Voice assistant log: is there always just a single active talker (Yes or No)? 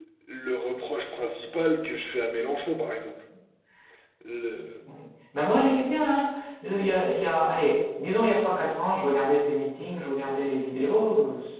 Yes